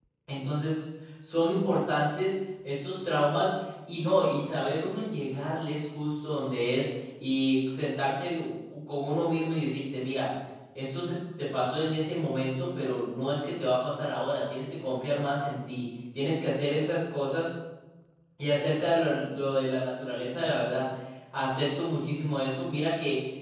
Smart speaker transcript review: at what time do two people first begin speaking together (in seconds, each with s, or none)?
none